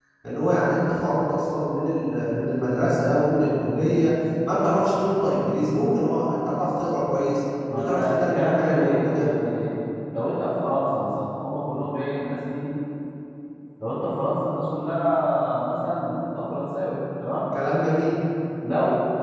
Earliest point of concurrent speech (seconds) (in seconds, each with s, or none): 7.7 s